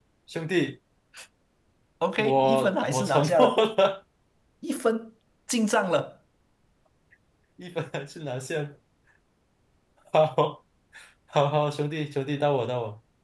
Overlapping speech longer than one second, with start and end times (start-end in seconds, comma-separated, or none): 2.2-3.6